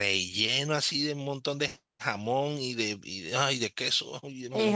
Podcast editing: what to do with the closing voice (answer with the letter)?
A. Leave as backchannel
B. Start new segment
B